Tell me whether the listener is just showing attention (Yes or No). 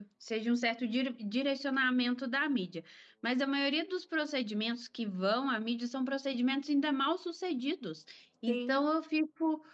Yes